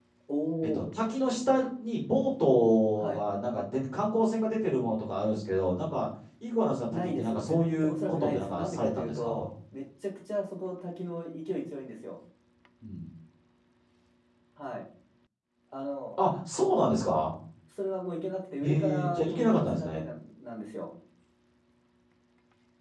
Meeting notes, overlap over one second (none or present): present